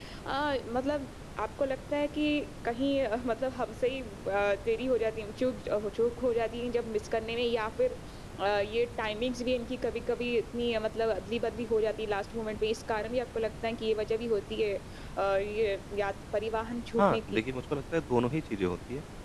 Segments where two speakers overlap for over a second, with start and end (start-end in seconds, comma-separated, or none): none